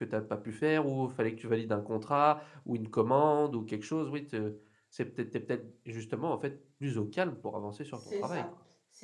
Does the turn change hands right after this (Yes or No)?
Yes